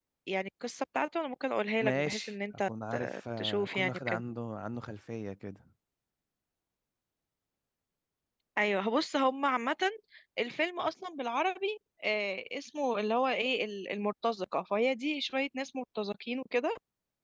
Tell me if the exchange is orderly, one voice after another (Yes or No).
No